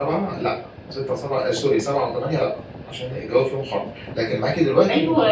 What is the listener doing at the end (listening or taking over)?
taking over